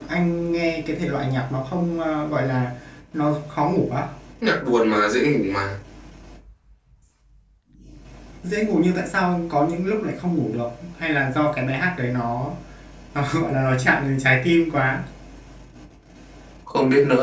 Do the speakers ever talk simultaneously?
No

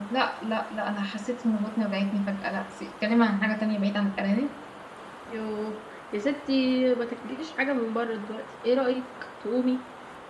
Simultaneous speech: No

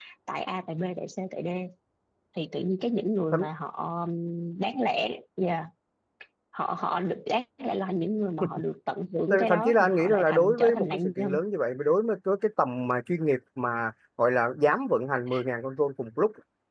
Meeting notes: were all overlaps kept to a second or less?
No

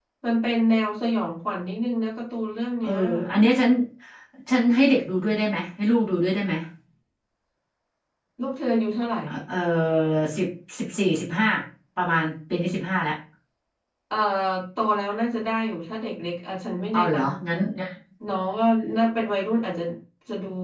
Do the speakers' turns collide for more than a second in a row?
No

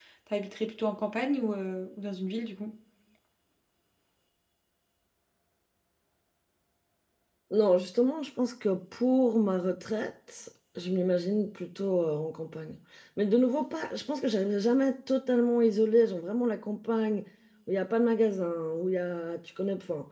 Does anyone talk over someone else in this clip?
No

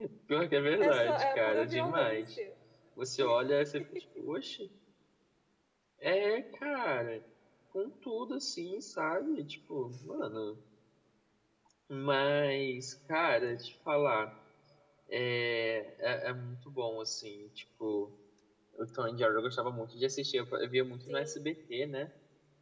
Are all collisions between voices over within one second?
No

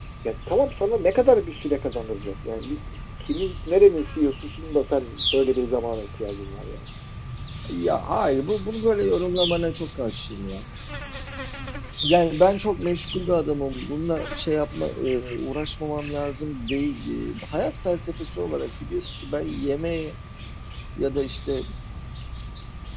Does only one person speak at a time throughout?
Yes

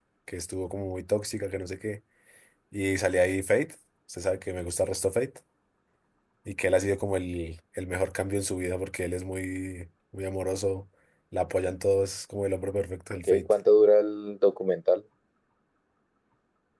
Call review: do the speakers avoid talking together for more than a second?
Yes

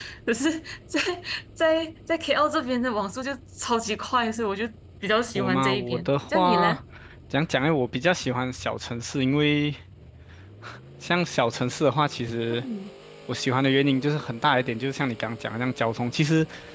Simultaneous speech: Yes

